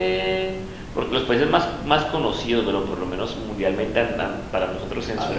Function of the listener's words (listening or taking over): listening